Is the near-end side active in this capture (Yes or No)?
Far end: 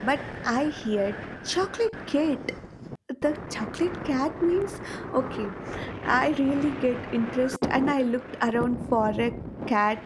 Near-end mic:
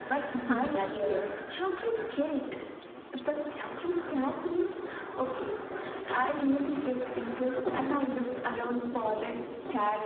Yes